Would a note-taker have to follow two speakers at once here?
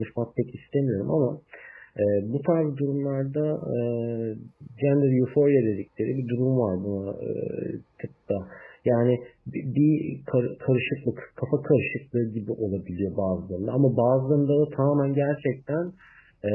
No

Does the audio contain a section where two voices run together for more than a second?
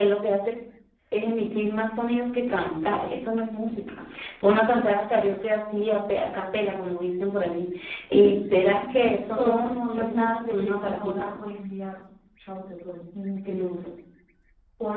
Yes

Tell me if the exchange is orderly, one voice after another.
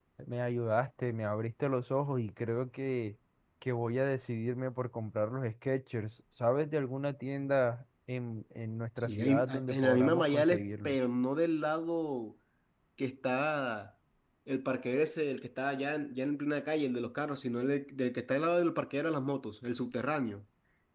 No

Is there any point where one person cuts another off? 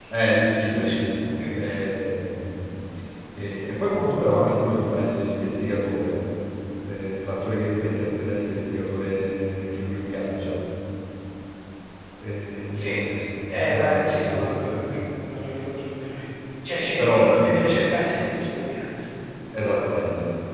Yes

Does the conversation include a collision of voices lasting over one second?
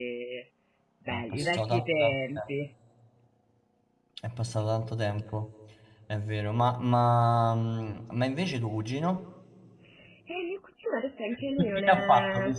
Yes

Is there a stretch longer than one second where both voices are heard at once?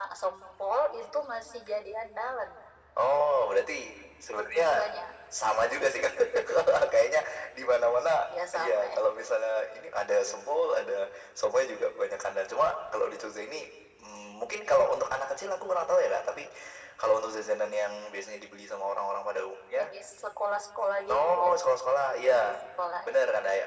No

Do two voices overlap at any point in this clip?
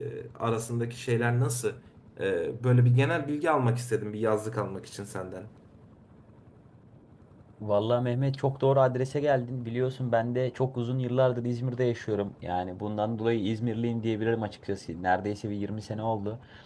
No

